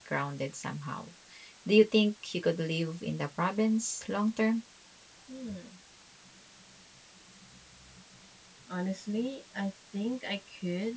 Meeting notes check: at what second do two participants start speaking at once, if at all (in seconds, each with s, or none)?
none